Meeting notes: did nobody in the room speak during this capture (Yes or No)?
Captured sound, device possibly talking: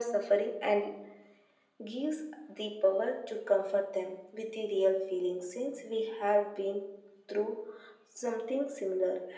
Yes